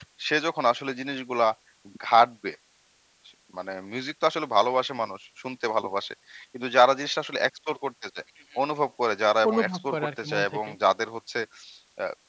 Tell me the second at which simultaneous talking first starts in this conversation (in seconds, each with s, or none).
9.5 s